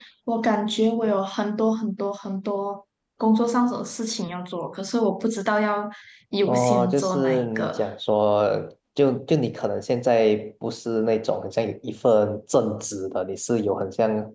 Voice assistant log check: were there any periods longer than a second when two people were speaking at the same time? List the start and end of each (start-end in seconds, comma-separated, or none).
6.5-7.8